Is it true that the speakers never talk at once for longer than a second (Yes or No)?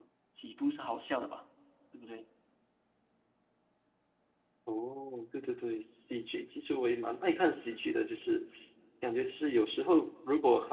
Yes